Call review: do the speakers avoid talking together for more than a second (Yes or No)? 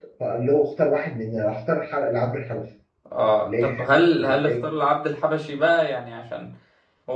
Yes